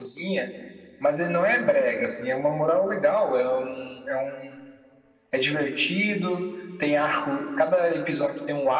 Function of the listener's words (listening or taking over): listening